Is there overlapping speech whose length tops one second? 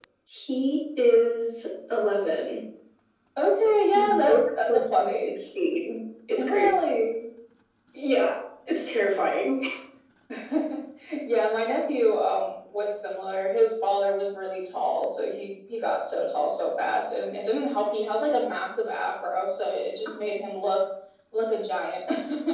Yes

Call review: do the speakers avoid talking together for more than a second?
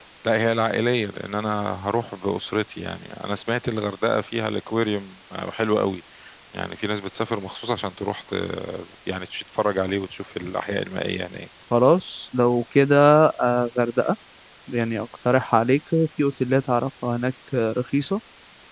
Yes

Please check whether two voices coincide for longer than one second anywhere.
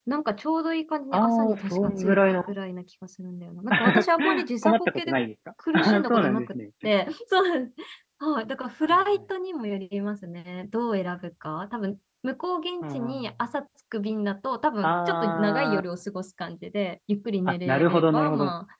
Yes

